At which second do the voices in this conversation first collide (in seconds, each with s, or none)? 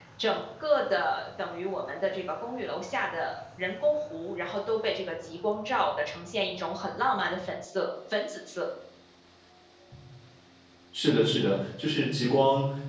none